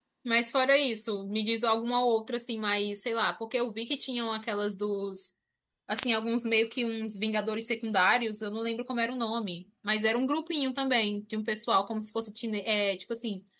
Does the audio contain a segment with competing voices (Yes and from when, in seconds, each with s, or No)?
No